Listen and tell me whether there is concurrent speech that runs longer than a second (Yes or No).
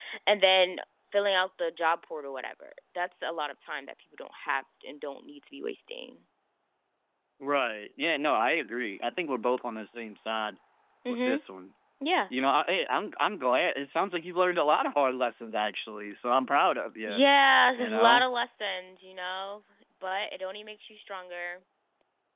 No